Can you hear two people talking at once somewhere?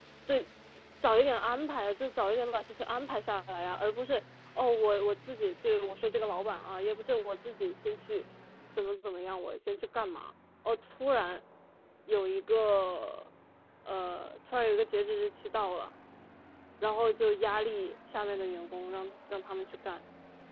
No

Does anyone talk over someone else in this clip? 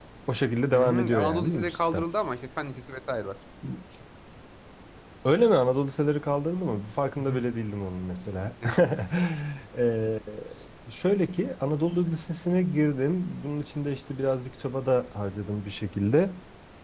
Yes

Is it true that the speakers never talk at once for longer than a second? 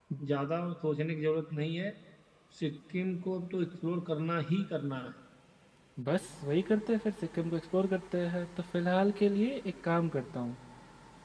Yes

